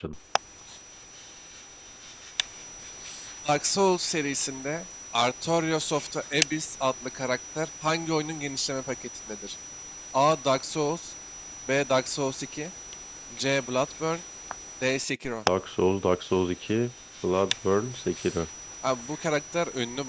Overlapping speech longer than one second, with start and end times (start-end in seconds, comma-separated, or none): none